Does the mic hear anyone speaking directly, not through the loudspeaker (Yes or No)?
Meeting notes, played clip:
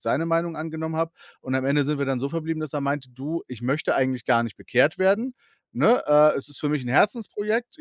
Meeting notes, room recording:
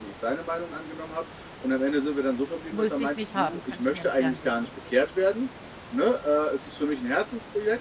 Yes